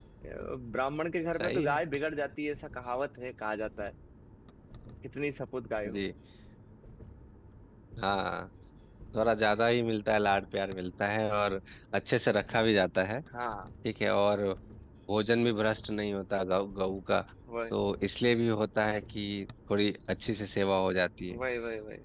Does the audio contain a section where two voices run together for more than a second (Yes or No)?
No